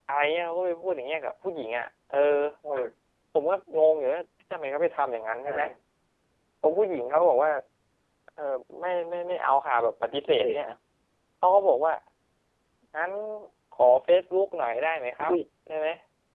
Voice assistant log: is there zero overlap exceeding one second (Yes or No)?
Yes